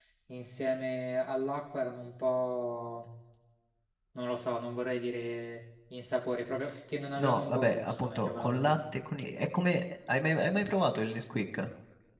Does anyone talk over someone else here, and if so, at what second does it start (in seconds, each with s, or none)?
7.2 s